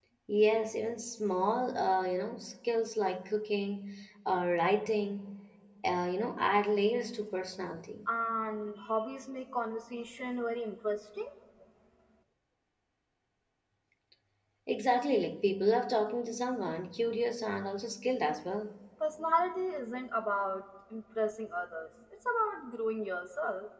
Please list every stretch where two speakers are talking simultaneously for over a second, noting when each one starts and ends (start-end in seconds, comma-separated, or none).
none